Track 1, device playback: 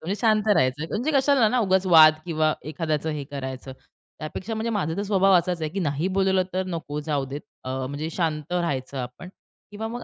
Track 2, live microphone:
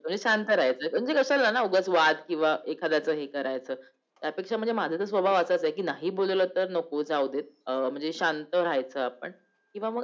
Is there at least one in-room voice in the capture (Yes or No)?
No